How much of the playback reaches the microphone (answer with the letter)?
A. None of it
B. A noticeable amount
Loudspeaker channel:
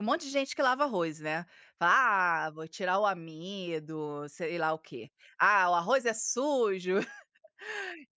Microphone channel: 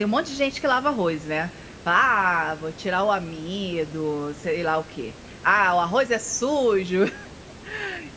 B